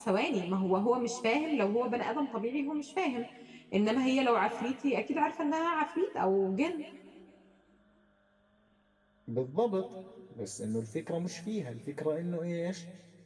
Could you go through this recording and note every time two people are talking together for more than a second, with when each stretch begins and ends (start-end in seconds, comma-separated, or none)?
none